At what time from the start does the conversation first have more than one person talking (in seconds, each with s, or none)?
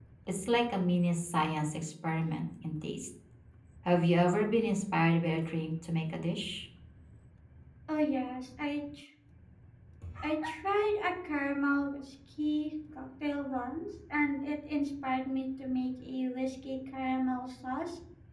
none